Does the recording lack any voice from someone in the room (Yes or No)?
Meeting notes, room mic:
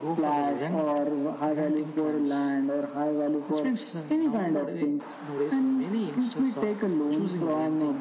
Yes